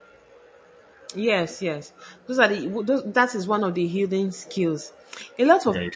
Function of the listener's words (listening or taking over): listening